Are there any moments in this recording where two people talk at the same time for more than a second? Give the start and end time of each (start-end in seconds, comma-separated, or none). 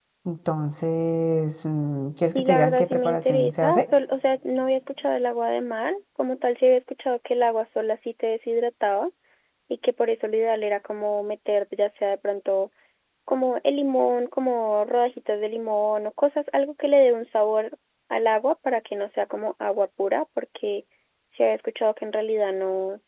2.2-3.9